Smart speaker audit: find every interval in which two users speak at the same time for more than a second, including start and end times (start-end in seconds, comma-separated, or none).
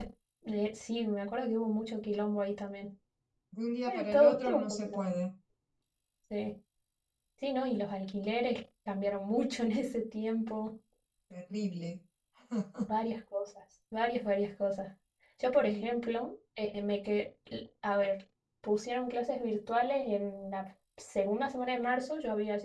3.9-5.2